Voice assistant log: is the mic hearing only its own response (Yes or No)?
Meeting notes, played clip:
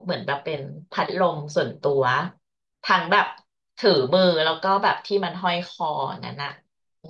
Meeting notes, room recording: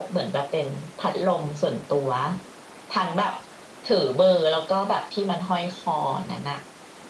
Yes